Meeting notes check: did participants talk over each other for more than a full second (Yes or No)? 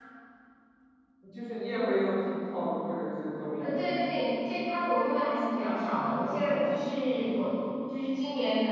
No